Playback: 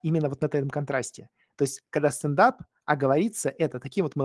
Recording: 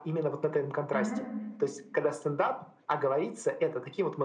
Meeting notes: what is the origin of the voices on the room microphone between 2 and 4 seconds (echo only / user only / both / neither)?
echo only